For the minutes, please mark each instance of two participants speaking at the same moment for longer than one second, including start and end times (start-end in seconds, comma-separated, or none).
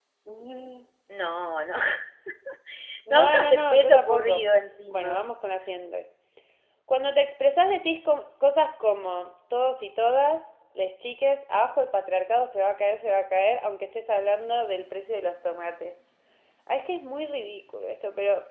3.1-4.4